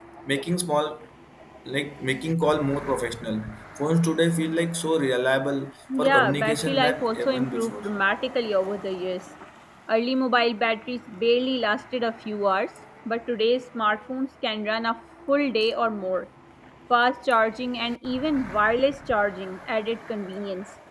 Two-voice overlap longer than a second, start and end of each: 6.0-7.8

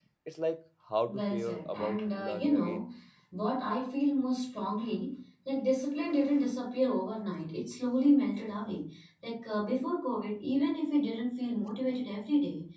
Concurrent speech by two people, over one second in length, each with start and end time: 1.1-2.8

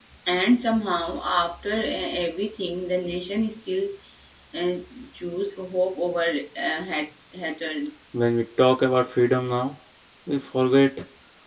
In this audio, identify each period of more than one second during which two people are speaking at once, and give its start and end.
none

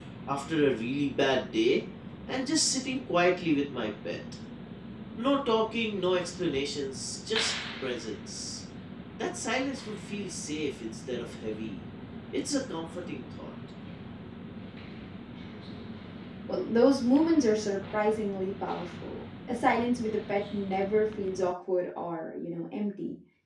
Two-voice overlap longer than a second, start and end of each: none

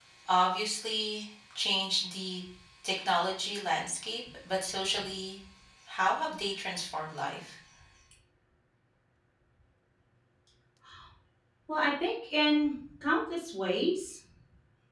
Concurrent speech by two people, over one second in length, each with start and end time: none

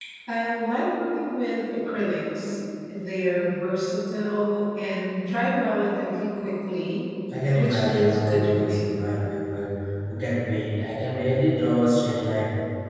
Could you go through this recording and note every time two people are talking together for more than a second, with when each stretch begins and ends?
7.6-8.8

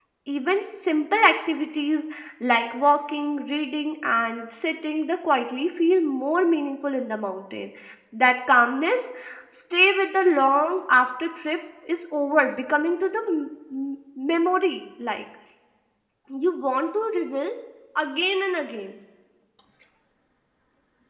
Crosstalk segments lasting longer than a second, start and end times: none

